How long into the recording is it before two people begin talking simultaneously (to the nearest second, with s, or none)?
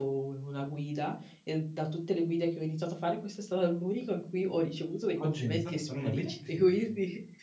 5 s